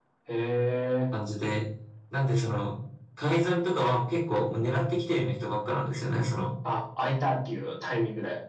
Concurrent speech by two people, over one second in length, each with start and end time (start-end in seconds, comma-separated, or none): none